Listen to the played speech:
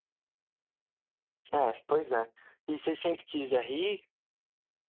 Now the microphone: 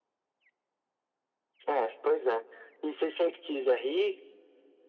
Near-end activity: none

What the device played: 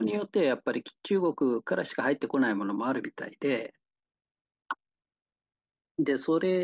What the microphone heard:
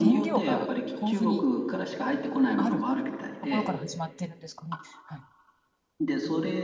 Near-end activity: present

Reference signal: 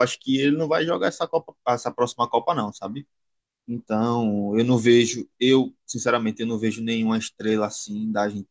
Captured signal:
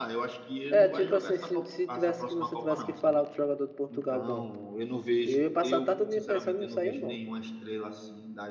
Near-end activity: present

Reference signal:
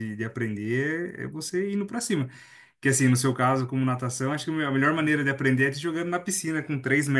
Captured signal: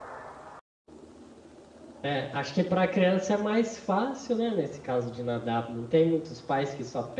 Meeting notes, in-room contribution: present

